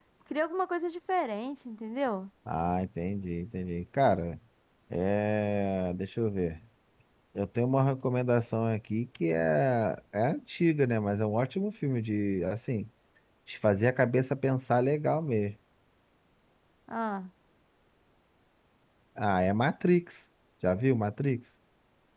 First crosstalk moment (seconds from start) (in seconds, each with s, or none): none